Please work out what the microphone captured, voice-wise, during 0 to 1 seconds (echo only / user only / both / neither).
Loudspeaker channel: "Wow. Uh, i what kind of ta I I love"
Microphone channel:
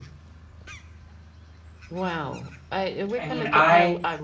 neither